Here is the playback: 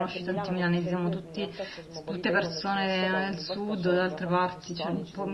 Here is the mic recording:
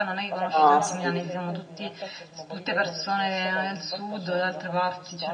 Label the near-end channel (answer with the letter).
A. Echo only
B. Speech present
B